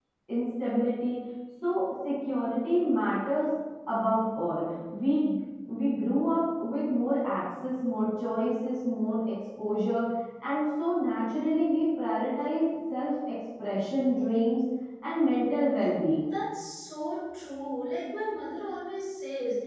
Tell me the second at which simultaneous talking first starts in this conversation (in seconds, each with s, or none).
none